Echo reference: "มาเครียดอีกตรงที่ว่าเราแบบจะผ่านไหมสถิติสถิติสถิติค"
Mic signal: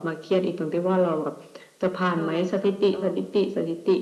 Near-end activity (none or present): present